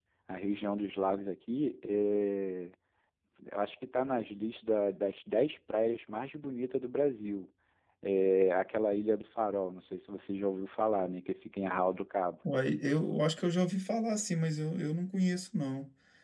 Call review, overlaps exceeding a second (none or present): none